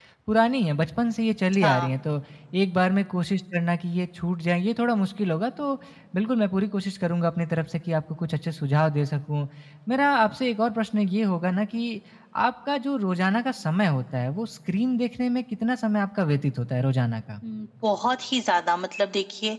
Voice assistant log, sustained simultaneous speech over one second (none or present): none